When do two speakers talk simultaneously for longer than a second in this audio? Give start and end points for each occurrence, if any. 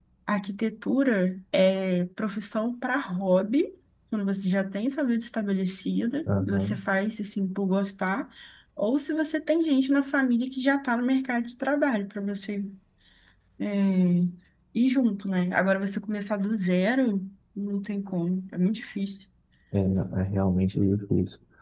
none

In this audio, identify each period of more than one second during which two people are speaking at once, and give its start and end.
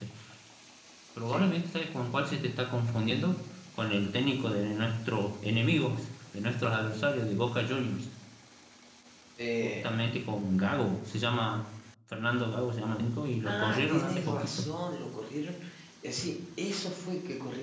13.4-14.7

